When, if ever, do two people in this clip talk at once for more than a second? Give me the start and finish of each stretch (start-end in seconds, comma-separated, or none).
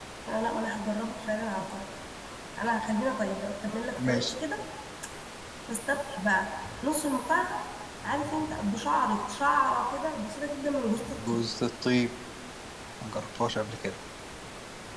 none